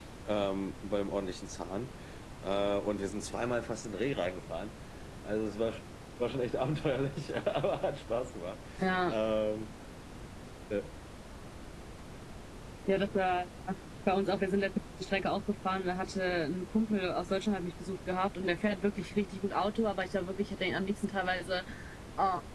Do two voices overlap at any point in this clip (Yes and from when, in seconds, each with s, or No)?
No